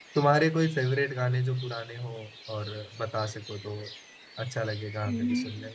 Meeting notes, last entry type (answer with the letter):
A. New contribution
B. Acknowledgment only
A